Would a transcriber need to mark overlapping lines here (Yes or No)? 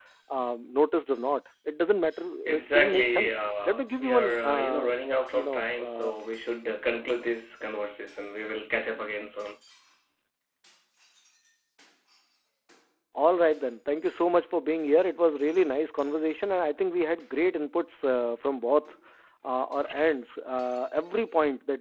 Yes